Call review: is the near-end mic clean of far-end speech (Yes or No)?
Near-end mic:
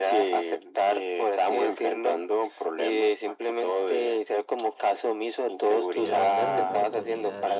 No